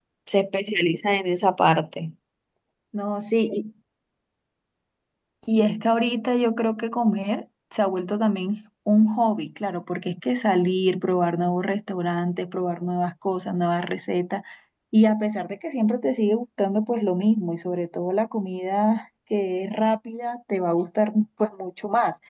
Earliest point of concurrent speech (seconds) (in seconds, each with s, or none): none